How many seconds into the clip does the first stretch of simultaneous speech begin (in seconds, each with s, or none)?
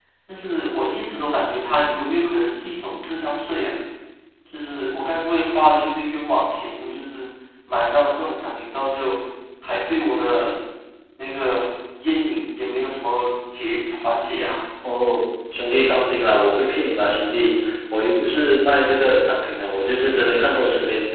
none